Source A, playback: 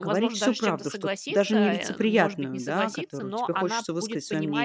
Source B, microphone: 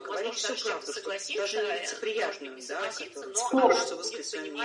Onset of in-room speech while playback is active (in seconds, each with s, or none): 3.3 s